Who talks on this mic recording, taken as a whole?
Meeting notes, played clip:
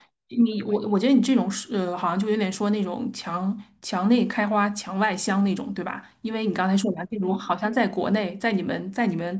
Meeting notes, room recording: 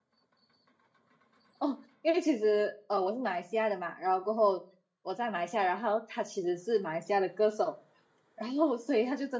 user only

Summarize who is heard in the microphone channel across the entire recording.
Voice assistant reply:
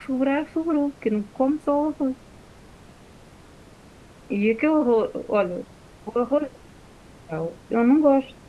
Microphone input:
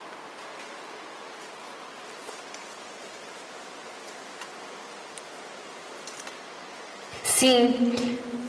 user only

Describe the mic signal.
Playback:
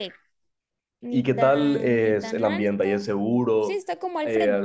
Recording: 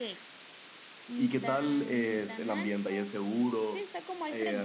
echo only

